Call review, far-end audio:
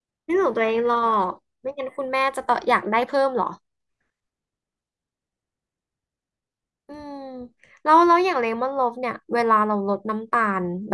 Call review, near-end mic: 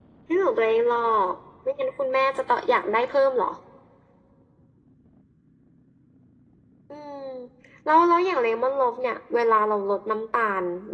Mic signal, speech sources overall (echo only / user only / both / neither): echo only